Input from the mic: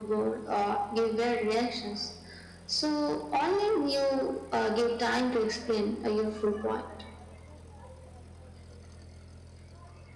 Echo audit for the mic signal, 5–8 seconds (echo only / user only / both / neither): echo only